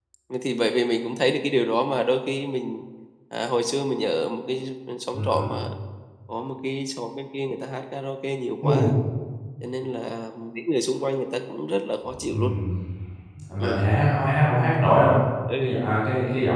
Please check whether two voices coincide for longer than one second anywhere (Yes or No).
No